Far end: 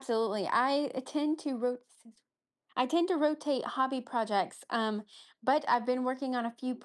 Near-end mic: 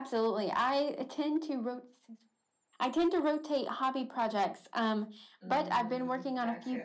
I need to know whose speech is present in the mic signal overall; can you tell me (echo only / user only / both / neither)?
both